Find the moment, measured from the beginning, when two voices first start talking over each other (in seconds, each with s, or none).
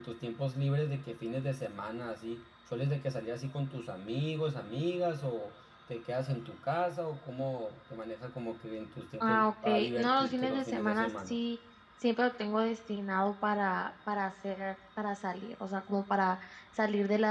9.2 s